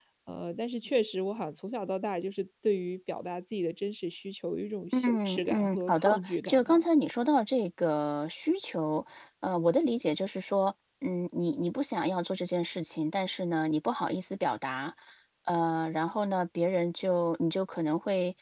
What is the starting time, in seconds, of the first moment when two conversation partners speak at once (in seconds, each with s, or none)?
4.9 s